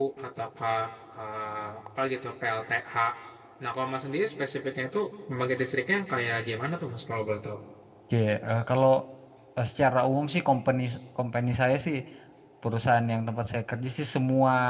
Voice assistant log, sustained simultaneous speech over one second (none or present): none